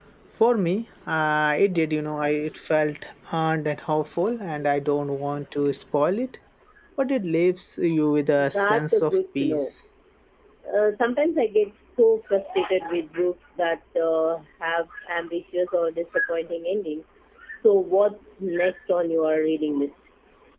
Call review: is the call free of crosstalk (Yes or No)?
No